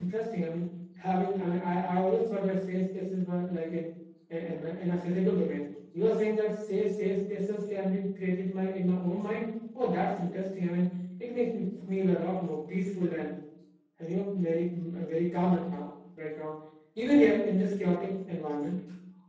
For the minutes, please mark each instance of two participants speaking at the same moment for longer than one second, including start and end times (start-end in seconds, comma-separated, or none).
none